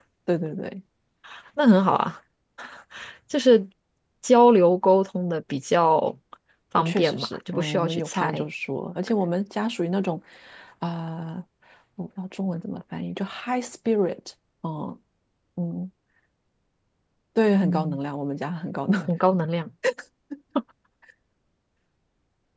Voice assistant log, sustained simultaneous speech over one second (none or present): present